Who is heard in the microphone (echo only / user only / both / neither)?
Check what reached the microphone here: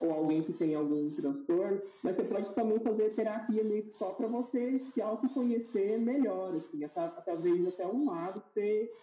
echo only